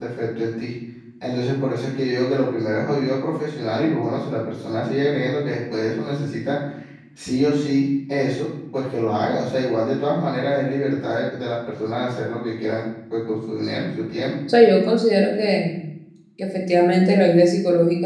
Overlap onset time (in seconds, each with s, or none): none